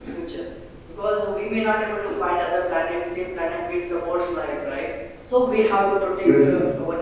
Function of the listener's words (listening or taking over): listening